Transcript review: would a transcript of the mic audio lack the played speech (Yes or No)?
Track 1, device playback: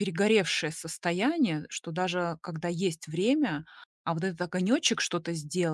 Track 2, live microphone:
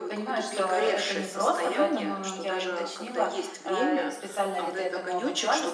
No